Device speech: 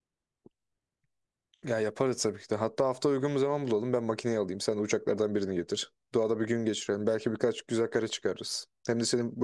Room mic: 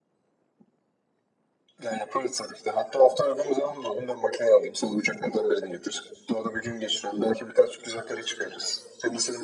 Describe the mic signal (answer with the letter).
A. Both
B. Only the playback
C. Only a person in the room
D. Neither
B